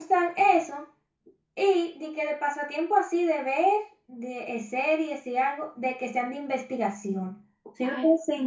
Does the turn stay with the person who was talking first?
Yes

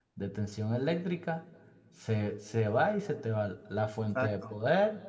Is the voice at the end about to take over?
No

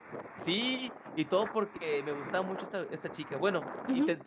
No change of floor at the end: No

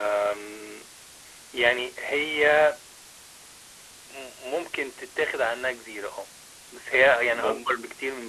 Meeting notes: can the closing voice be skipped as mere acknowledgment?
Yes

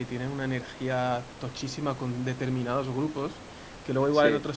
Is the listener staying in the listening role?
Yes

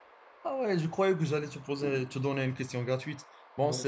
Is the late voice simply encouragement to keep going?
Yes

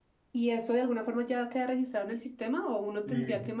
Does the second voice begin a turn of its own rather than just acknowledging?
Yes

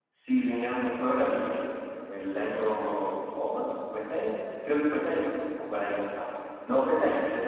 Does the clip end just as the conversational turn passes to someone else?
No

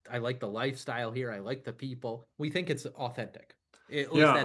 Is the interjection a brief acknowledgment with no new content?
No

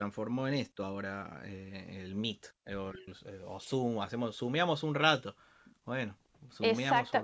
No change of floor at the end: No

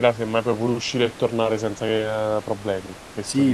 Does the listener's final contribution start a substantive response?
Yes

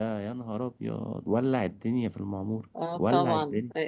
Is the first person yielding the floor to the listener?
Yes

